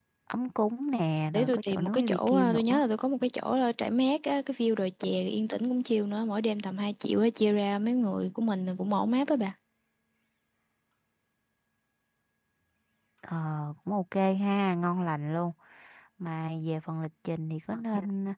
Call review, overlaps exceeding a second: present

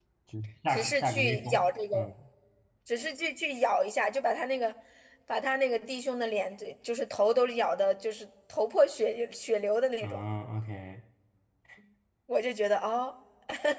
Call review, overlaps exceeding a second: present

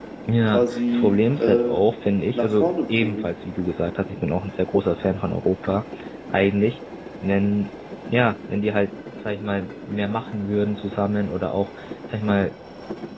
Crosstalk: present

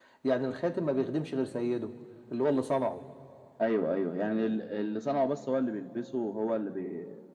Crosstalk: none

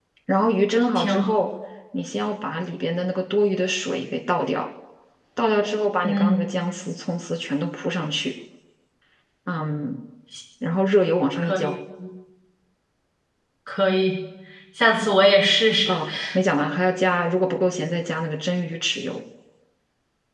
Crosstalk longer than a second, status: none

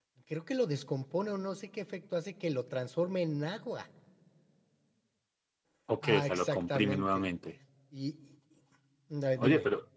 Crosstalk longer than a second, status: present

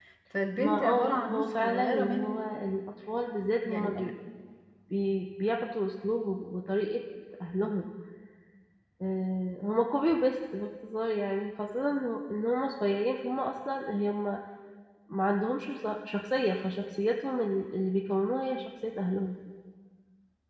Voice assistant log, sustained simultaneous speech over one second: present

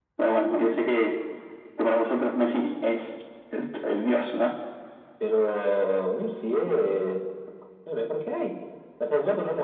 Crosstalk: none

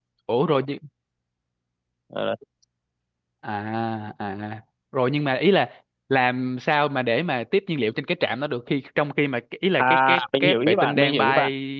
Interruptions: present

